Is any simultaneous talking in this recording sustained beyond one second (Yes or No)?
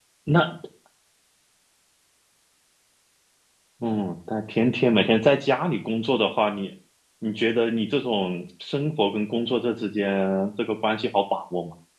No